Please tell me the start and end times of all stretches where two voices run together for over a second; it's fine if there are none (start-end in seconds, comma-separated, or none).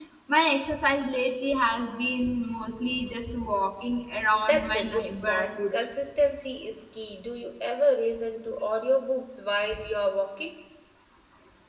4.4-5.7